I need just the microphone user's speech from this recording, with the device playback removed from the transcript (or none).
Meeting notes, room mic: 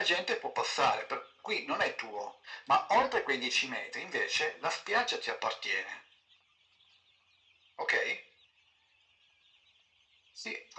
none